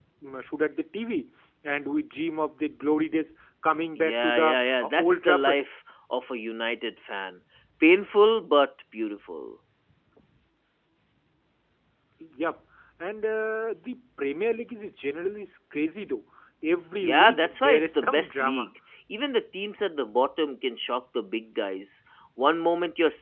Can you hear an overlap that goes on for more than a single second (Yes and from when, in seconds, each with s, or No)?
Yes, from 4.0 s